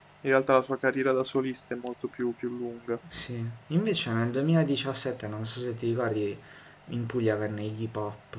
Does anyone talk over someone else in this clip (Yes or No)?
No